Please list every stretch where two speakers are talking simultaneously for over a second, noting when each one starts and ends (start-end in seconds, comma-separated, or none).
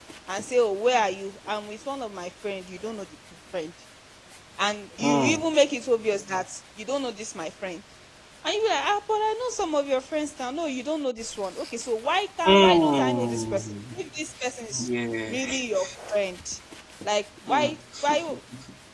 12.4-13.8